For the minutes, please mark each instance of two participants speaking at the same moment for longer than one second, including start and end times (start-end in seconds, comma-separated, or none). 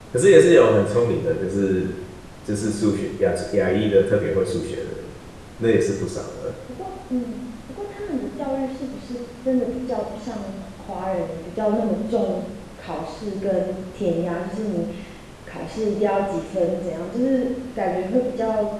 none